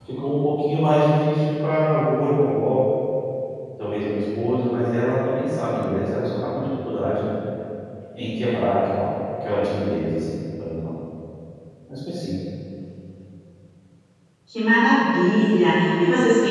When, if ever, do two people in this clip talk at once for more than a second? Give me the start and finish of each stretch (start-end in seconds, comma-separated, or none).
none